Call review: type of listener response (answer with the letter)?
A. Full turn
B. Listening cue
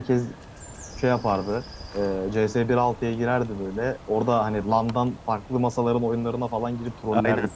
A